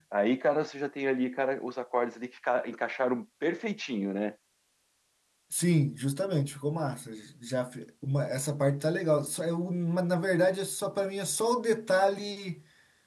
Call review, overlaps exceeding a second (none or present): none